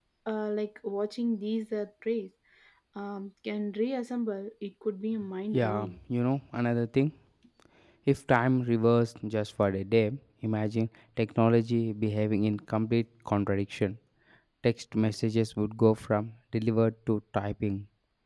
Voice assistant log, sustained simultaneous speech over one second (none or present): none